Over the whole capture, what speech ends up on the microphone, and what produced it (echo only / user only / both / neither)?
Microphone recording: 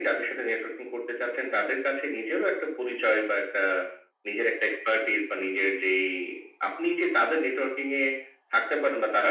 echo only